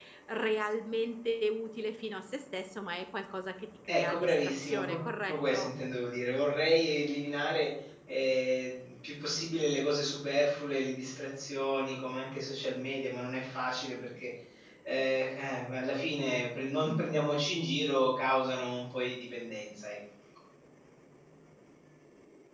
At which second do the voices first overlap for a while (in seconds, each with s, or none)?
3.9 s